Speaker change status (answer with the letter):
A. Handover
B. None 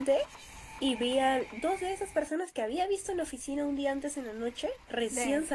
B